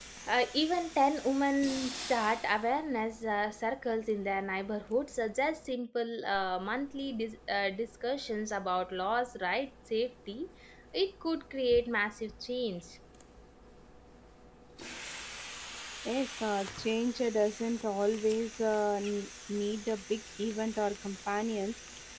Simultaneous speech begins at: none

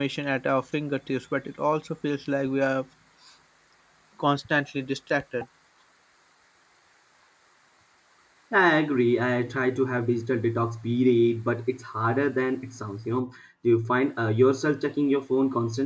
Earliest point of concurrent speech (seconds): none

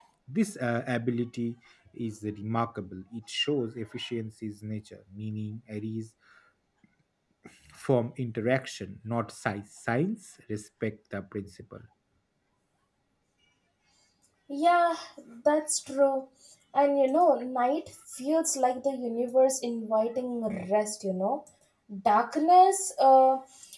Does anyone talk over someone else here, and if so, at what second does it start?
none

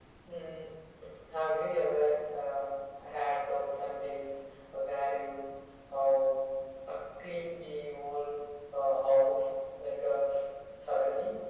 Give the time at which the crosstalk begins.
none

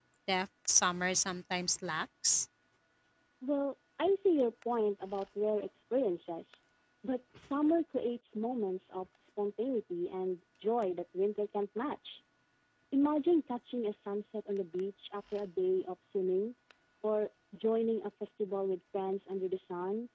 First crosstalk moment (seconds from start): none

